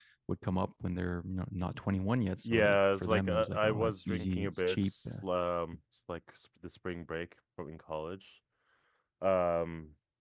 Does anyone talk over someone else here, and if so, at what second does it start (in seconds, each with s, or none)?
2.4 s